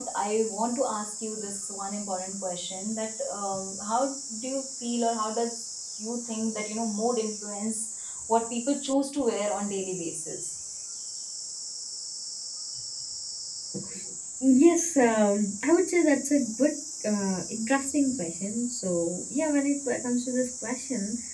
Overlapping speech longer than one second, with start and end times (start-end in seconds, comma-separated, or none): none